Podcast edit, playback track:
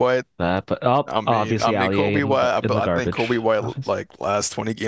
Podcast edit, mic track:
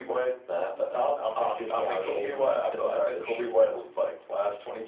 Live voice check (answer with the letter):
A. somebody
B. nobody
B